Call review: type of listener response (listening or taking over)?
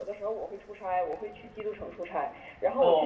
listening